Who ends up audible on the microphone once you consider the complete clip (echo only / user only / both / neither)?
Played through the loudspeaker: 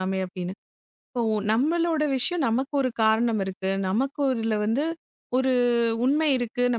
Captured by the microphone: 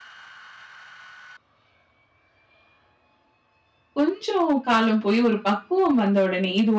user only